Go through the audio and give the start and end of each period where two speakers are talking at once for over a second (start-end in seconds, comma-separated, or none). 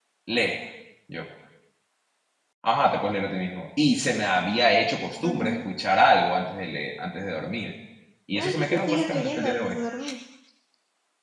8.3-9.8